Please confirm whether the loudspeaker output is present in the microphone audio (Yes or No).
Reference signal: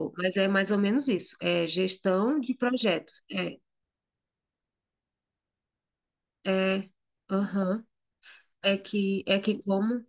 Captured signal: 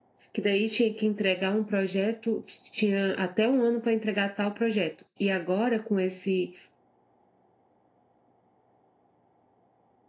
No